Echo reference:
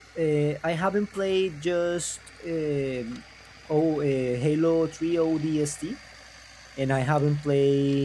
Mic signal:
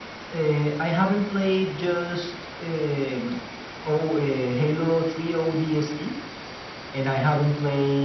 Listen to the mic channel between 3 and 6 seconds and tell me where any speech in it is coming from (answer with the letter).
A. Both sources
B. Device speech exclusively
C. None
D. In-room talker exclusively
B